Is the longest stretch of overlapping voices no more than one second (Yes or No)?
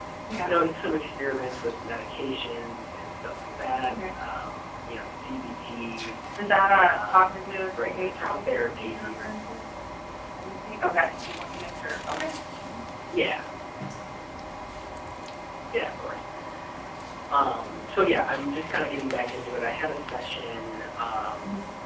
No